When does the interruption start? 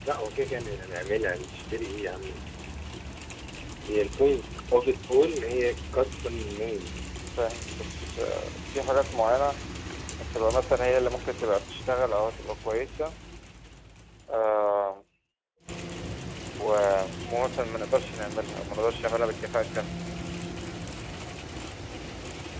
none

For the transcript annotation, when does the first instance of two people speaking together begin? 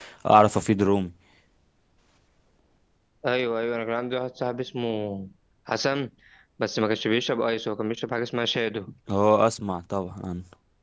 none

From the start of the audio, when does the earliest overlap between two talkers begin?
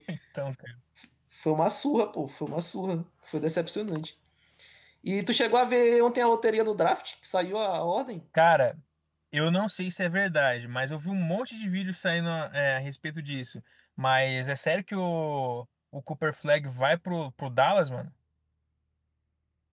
none

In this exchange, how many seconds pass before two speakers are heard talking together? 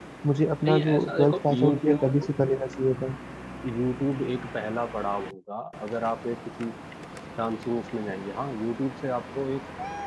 1 s

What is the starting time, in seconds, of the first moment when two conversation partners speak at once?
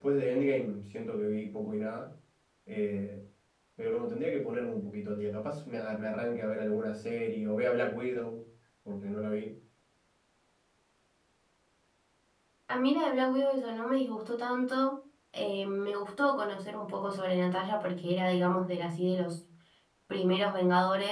none

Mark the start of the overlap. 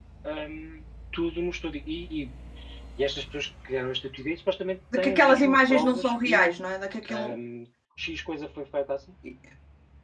5 s

